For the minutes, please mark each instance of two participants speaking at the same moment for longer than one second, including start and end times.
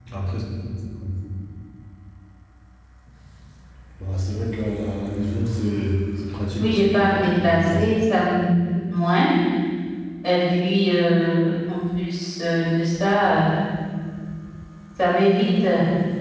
6.6-8.0

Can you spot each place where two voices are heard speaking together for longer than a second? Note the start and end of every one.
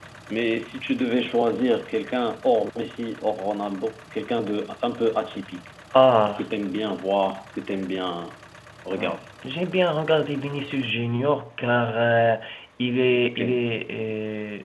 none

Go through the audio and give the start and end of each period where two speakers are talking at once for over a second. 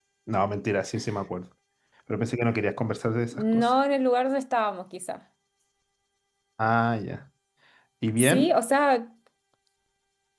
none

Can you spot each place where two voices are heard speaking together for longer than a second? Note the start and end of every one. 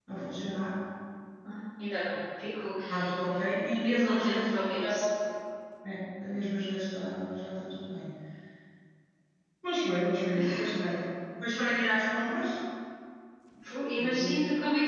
3.8-5.0

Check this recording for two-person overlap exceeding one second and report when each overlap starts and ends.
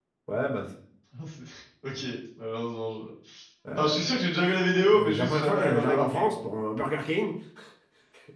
4.9-6.4

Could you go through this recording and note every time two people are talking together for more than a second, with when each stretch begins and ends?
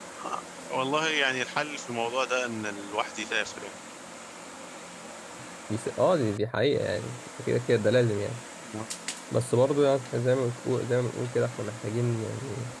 none

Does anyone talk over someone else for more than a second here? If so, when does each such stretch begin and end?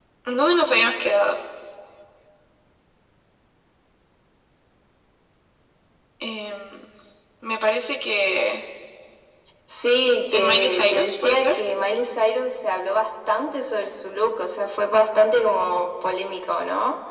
10.3-11.6

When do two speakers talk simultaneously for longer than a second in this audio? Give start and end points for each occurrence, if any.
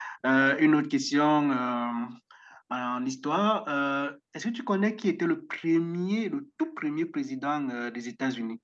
none

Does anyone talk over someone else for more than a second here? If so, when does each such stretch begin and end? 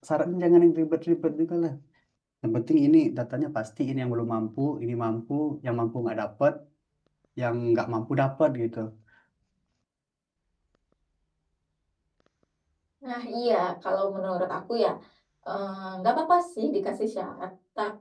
none

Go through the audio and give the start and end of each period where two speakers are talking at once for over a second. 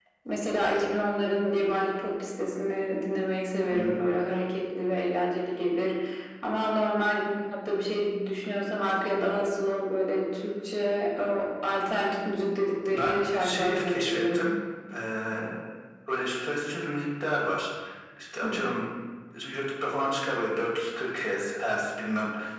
12.9-14.5

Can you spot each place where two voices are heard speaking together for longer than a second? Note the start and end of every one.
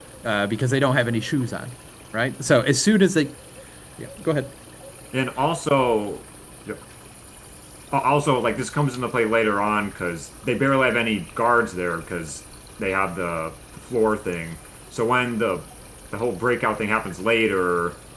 none

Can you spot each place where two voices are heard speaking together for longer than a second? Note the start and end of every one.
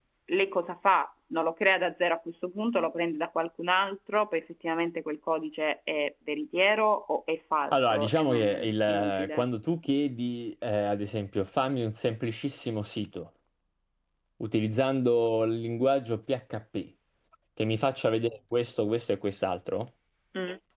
7.7-9.4

